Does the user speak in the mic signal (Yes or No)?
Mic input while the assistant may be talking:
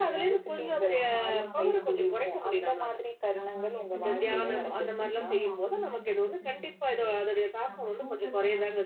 Yes